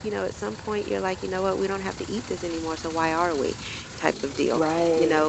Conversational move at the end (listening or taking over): listening